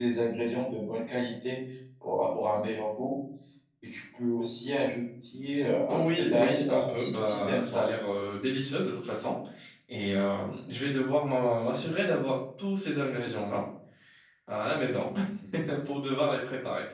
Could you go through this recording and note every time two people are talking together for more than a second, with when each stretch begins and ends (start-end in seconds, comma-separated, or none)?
5.9-7.8